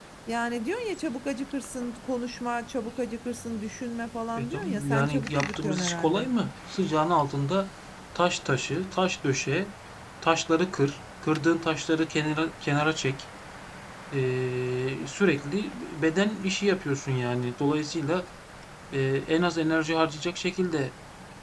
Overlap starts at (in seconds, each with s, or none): 4.4 s